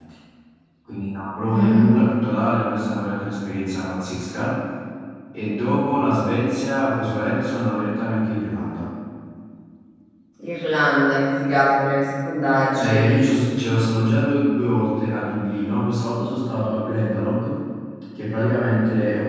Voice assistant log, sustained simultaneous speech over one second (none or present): none